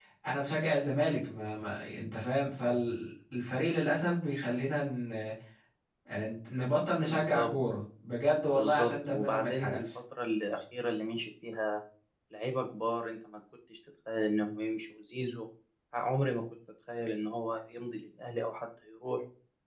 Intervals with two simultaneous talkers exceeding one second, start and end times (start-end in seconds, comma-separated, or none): 8.4-9.8